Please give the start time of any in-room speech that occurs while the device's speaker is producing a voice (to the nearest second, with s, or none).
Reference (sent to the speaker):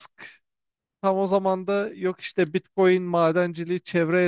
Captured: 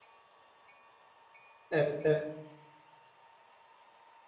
2 s